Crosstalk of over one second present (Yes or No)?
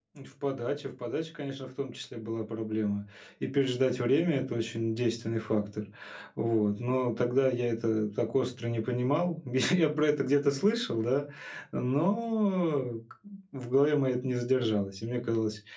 No